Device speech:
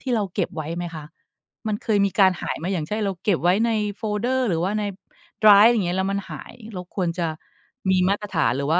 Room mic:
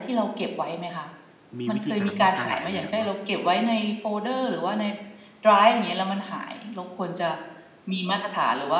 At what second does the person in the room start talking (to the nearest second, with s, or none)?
2 s